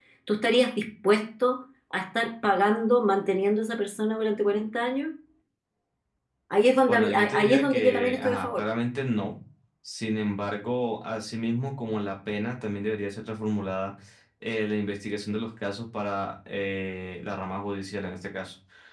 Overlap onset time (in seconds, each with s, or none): 6.9 s